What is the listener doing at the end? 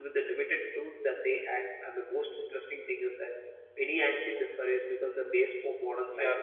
taking over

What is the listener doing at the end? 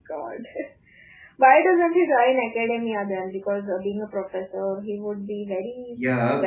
taking over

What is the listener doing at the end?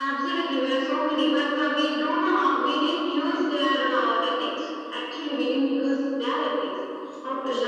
listening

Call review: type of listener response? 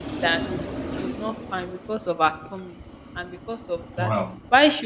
listening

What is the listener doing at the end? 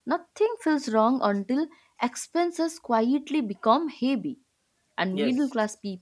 listening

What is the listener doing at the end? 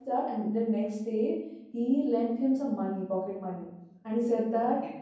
listening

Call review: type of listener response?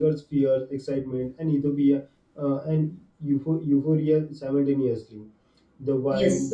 listening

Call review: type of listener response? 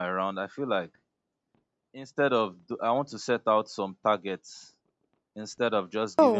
listening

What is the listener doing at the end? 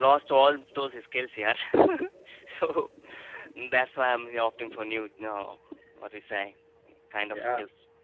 taking over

